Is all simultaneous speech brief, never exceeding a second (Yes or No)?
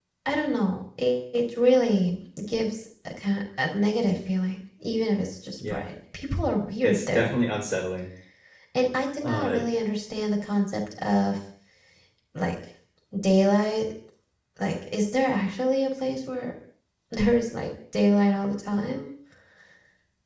Yes